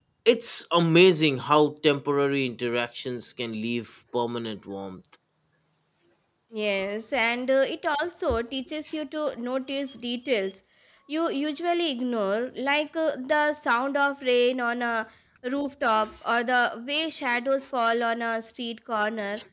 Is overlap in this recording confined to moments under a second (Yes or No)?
Yes